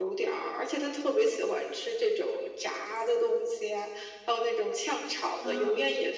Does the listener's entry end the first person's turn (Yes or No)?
No